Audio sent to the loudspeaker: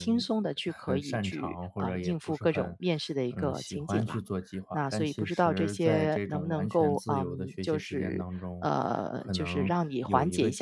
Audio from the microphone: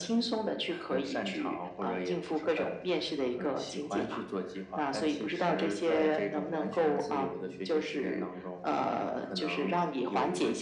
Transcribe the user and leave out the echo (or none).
none